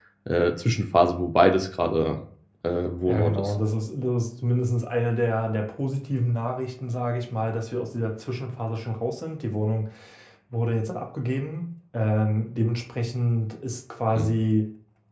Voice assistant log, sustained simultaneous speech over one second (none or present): none